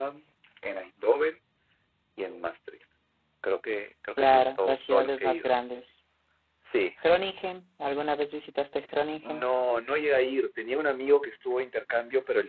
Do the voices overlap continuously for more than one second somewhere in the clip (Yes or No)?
Yes